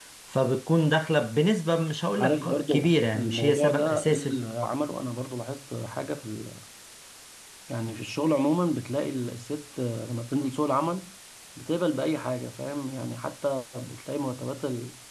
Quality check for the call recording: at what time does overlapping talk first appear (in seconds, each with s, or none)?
2.1 s